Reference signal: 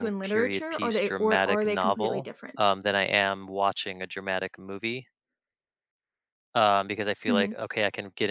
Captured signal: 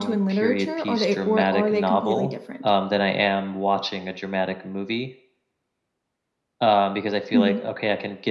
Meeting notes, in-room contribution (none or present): none